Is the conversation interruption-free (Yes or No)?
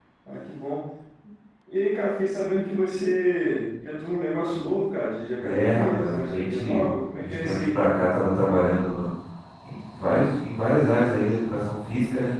No